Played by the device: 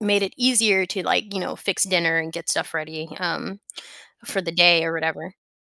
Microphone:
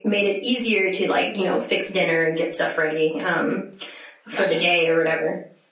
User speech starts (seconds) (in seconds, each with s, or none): 4.3 s